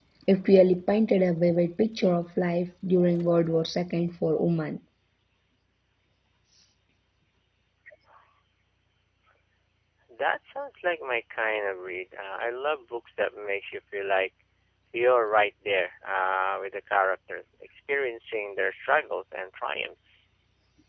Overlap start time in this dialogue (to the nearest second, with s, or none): none